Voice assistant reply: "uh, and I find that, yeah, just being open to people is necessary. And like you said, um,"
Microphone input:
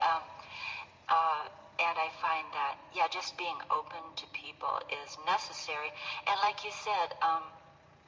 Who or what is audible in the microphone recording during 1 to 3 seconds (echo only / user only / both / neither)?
echo only